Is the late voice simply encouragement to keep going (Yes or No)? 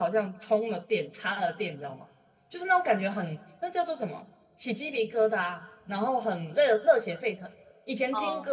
Yes